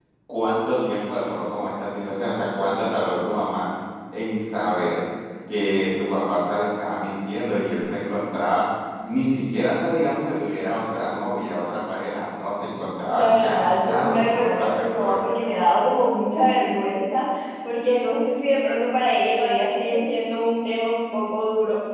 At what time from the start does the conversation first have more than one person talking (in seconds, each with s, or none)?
13.1 s